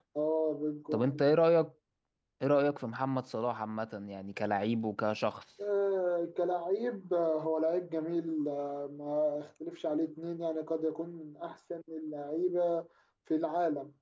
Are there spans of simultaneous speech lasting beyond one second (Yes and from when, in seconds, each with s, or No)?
No